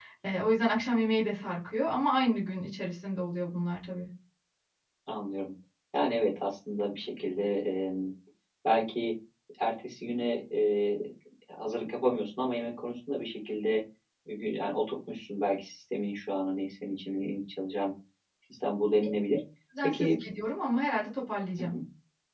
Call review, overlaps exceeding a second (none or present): none